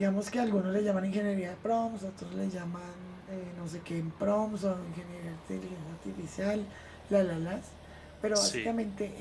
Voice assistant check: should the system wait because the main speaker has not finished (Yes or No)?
Yes